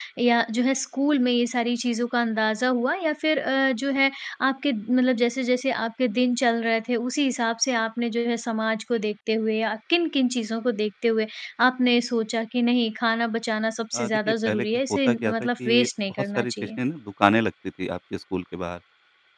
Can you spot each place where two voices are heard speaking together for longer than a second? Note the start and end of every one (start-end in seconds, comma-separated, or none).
13.9-16.5